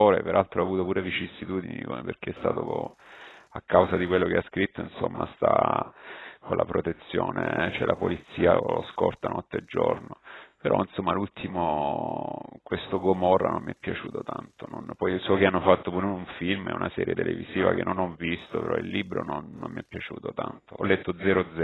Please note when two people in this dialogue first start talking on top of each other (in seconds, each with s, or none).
none